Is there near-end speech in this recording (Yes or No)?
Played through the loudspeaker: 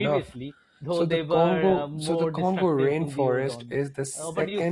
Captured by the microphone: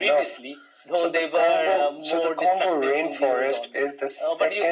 No